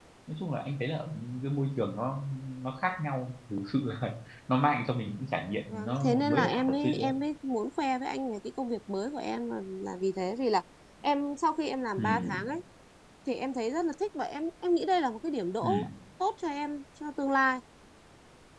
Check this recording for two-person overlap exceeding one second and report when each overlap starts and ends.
5.7-7.1

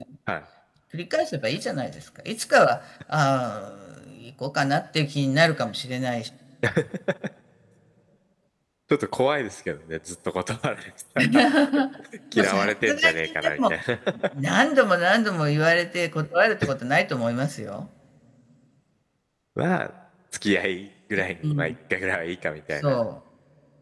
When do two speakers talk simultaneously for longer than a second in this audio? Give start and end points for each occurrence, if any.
12.3-13.7

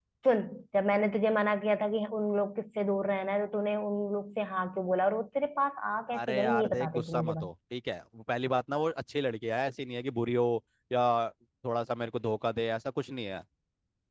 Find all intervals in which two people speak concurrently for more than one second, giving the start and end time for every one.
6.1-7.5

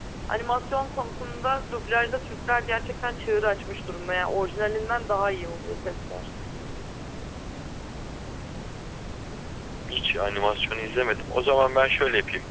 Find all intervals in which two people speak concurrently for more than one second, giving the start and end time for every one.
none

